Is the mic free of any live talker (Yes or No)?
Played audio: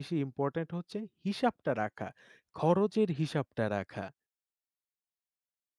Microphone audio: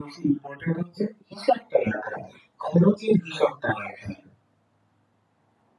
Yes